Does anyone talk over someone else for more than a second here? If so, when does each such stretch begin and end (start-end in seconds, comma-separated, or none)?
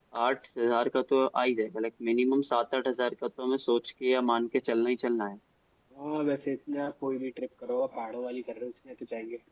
none